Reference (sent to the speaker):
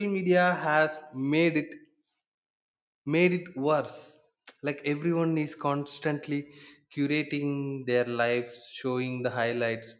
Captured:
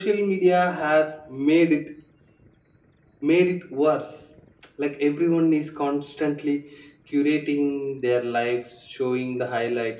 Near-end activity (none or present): none